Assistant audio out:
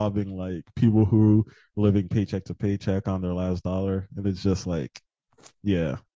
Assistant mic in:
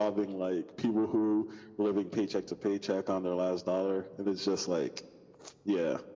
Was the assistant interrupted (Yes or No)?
No